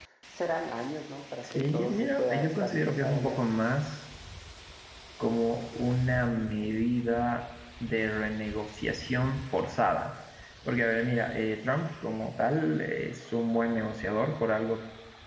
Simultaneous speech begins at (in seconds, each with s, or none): 1.4 s